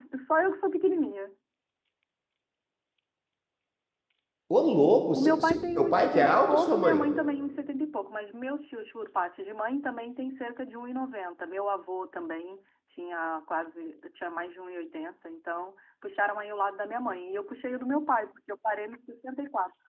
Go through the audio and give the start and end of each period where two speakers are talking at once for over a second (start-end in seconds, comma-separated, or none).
5.1-7.0